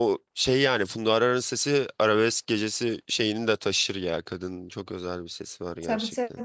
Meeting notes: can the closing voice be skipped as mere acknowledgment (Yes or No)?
No